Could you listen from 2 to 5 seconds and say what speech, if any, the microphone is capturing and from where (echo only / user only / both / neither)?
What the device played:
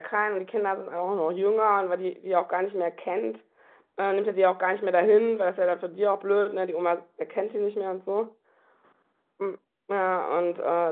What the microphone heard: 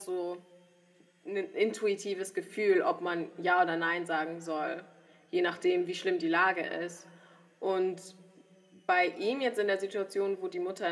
user only